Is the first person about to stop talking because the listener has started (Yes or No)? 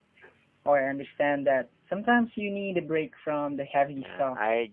Yes